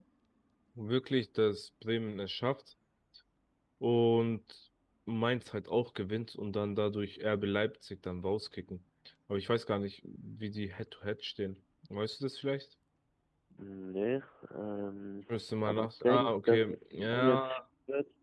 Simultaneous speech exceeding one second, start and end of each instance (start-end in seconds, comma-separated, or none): 15.6-17.6